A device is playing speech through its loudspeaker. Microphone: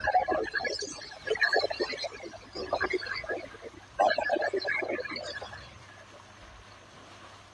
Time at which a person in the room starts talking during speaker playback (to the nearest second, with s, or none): none